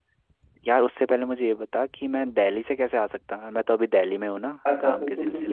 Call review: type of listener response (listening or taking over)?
taking over